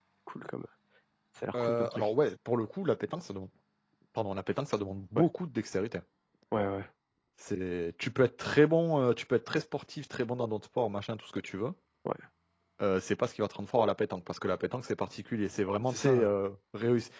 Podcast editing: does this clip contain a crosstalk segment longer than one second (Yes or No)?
No